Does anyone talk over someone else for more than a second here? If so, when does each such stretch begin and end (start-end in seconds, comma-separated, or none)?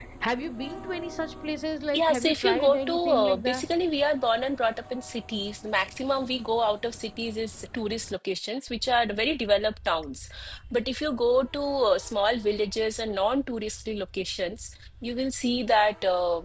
1.9-3.7